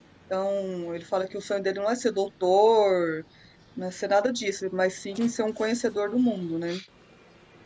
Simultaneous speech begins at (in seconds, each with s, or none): none